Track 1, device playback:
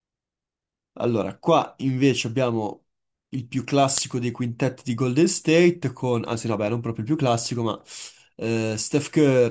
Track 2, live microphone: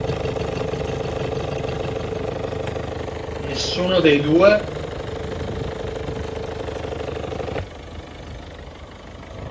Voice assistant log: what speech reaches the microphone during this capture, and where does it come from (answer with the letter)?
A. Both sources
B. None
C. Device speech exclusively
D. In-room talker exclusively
D